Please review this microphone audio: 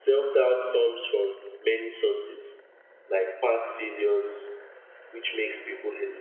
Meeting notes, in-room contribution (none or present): present